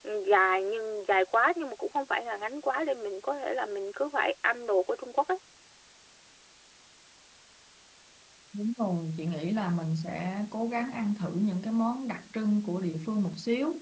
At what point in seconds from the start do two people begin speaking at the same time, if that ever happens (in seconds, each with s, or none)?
none